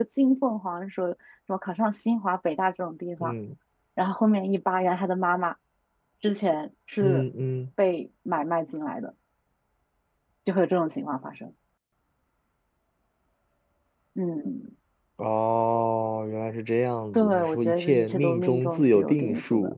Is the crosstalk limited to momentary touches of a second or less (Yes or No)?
No